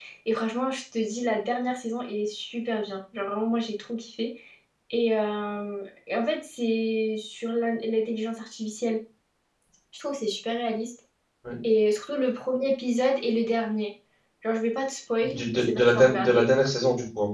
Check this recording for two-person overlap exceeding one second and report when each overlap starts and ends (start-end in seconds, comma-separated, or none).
15.2-16.5